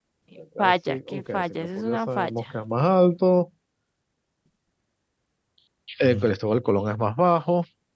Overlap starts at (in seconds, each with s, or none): 0.6 s